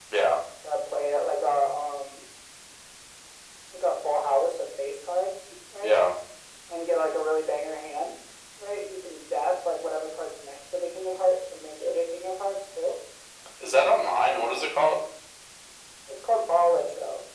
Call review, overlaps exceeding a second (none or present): none